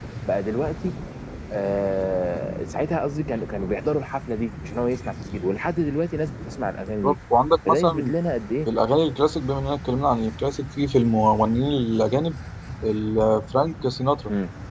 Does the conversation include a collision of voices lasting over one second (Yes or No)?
No